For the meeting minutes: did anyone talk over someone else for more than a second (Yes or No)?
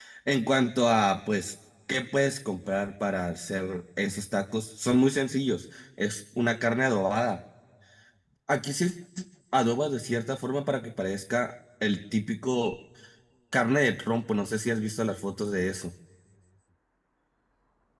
No